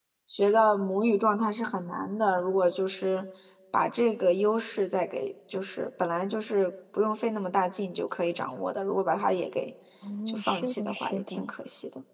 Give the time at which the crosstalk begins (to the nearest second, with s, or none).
10 s